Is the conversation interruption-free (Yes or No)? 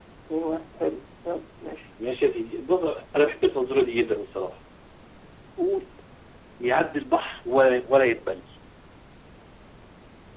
Yes